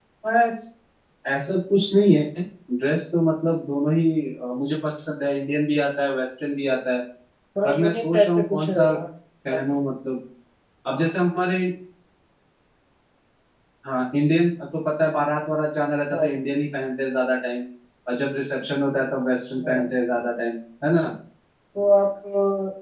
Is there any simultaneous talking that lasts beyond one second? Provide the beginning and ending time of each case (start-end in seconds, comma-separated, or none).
7.6-8.9